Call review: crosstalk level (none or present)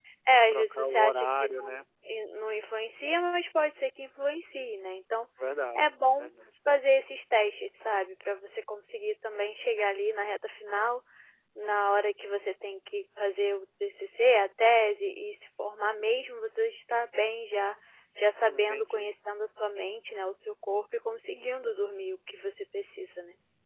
present